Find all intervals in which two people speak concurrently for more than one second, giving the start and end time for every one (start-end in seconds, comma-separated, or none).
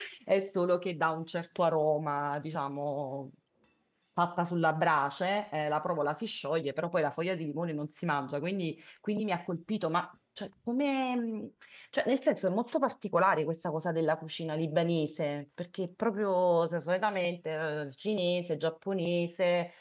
none